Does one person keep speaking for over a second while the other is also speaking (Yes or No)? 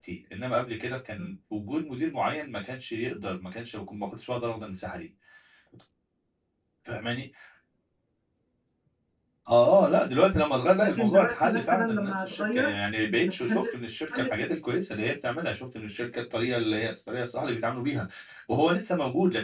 Yes